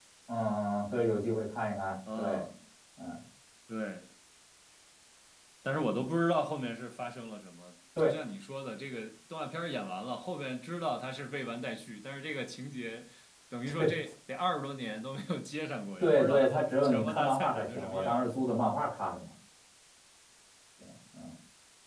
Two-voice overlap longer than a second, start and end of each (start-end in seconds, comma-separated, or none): 16.0-18.3